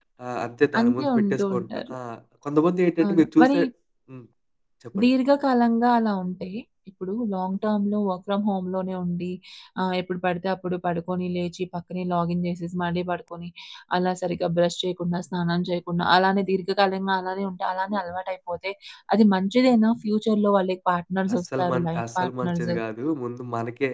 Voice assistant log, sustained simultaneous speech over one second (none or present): present